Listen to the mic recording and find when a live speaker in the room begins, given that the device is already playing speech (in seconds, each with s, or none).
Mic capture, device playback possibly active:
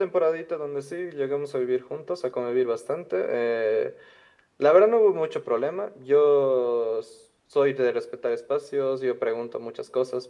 none